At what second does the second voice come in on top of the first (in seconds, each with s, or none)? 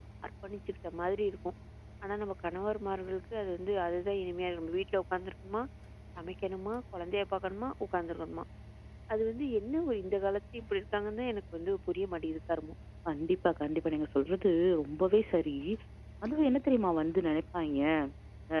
none